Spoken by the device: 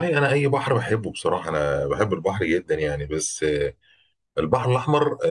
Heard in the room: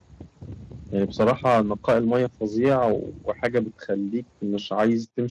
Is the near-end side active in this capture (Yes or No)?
Yes